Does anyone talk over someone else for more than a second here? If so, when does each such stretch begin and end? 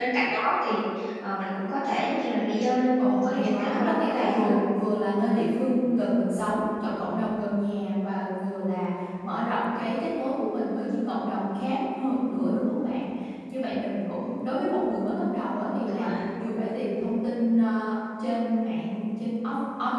3.0-4.5

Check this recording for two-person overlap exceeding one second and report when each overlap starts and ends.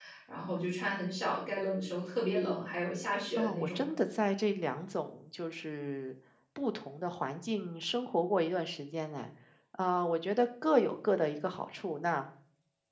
none

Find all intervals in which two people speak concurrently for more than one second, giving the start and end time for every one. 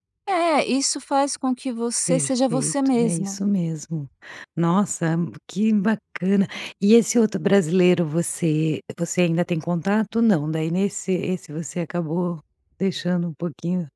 2.1-3.4

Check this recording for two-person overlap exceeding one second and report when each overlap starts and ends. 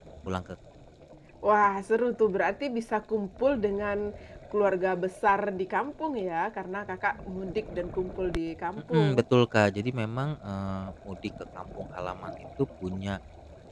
none

